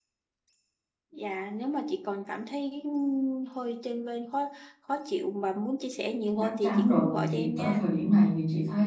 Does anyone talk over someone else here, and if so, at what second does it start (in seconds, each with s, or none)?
6.3 s